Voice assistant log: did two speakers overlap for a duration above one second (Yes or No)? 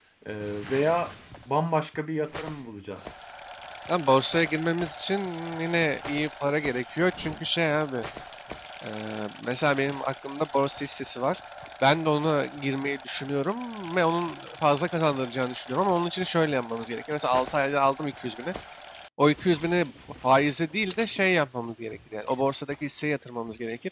No